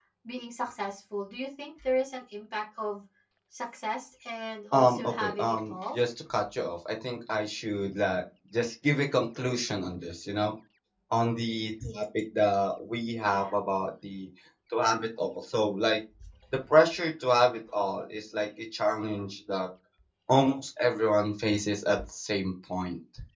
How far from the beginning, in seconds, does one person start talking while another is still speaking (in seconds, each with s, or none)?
4.7 s